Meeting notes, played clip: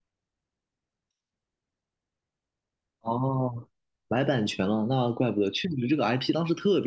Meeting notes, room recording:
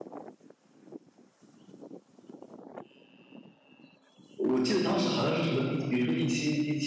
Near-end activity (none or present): present